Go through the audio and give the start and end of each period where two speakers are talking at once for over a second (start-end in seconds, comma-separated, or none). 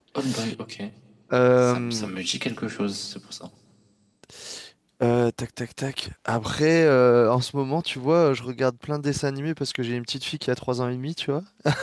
none